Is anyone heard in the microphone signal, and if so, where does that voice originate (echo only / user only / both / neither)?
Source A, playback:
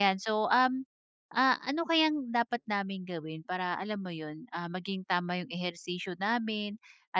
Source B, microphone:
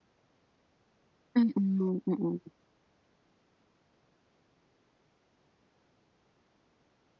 user only